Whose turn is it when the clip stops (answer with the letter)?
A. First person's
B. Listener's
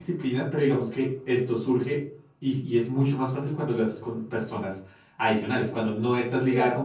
A